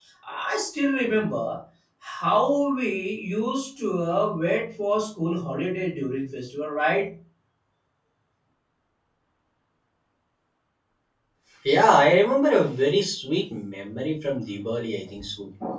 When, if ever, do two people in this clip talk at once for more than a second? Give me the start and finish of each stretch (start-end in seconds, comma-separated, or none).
none